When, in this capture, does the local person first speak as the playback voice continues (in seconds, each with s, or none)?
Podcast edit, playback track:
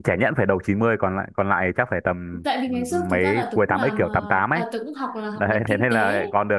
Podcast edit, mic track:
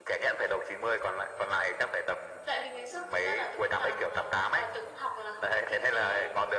none